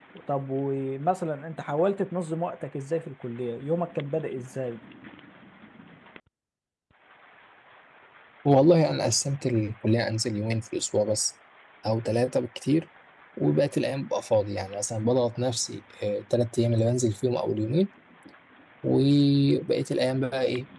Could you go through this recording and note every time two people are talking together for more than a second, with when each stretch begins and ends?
none

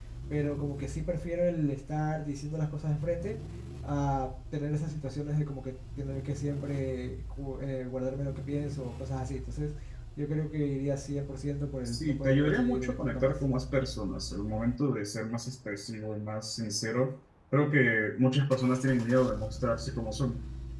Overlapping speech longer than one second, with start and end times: 11.8-13.4

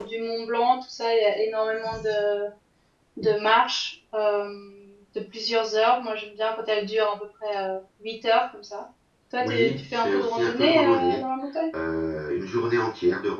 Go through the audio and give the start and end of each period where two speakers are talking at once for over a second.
9.4-11.2

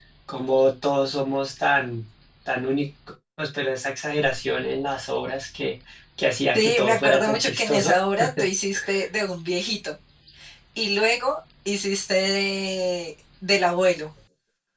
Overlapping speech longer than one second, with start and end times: 6.5-7.9

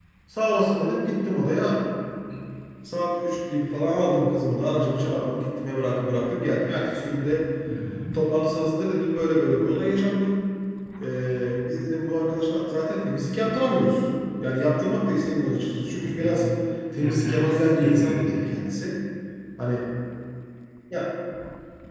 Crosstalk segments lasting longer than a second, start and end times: 16.9-18.5

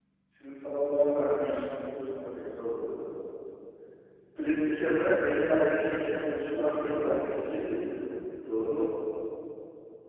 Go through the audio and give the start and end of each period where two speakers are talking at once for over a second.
6.5-7.7

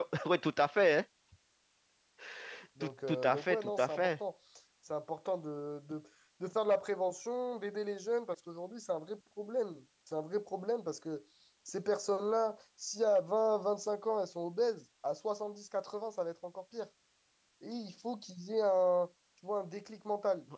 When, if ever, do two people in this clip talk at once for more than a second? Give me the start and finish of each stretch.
2.8-4.1

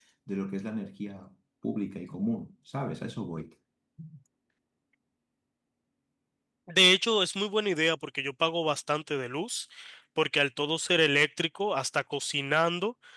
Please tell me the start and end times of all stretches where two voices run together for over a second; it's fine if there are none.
none

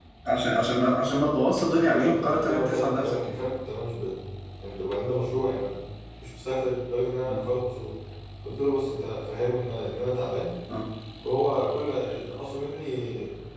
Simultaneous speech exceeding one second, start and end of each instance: 1.7-3.4

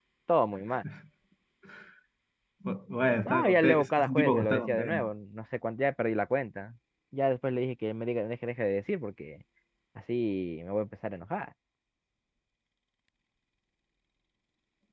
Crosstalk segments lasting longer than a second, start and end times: 3.2-5.1

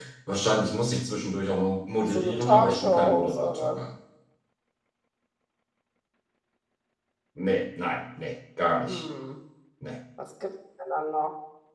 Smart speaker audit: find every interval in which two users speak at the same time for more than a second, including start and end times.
2.0-3.8

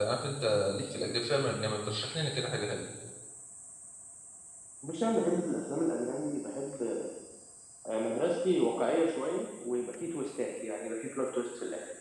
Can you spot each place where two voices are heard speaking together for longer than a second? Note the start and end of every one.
none

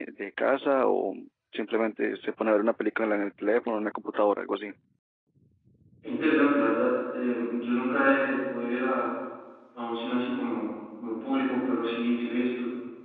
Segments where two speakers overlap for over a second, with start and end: none

